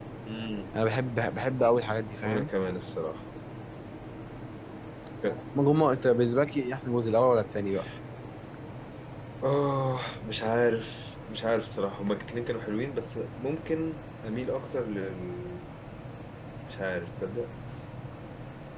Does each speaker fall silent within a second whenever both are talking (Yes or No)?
Yes